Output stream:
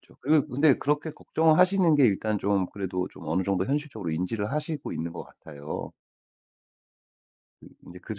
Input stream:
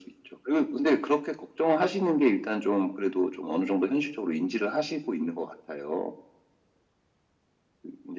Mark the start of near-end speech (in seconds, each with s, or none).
none